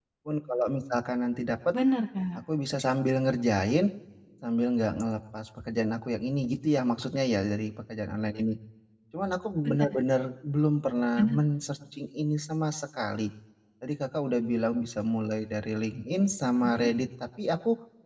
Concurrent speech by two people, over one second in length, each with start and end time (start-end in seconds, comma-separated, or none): none